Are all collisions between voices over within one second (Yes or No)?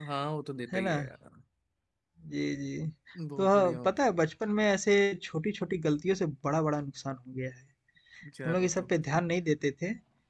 Yes